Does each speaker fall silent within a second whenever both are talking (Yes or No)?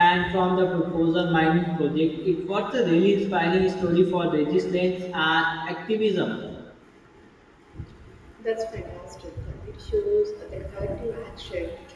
Yes